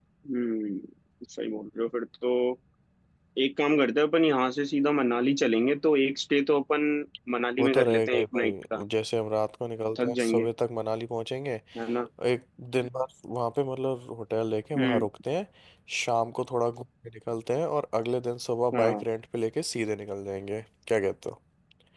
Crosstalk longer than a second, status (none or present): present